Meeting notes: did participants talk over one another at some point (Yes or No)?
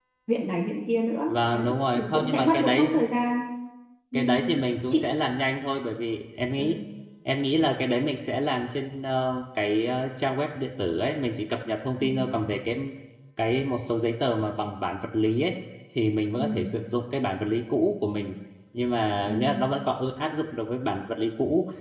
Yes